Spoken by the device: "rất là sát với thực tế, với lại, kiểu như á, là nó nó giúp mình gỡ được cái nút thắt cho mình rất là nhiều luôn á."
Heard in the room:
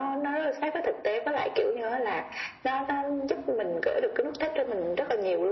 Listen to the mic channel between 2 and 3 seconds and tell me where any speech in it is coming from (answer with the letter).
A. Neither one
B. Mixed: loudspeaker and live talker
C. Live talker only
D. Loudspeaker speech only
D